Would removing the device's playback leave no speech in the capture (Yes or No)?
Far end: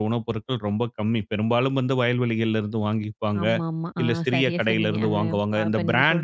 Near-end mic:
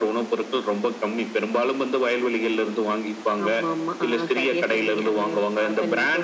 Yes